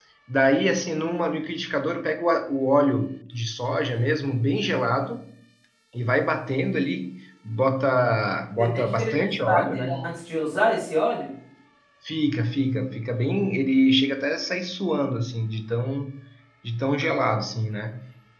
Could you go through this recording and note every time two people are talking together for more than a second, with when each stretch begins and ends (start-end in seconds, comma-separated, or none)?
8.6-10.0